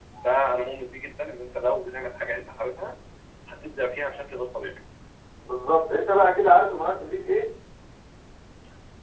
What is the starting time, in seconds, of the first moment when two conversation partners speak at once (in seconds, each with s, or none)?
none